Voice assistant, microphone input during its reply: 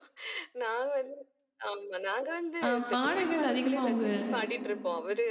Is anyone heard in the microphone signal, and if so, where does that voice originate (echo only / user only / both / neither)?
both